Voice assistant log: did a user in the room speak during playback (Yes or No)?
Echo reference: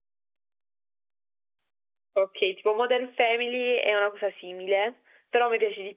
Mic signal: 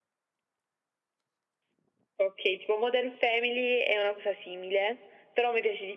No